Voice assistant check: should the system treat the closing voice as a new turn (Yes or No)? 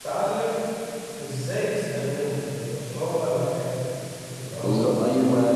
Yes